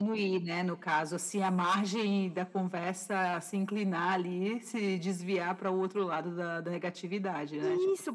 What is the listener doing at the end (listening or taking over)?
taking over